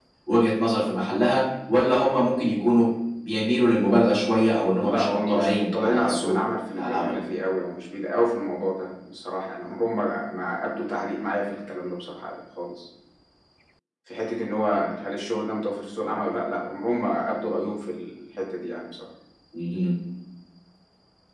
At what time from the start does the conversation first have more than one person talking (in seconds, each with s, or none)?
4.8 s